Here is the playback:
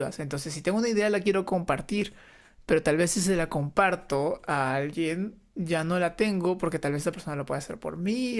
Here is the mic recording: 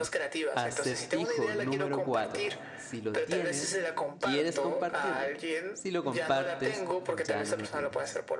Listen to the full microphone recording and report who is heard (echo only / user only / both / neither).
both